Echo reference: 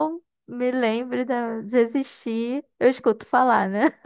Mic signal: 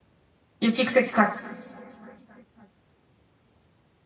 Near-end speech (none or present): present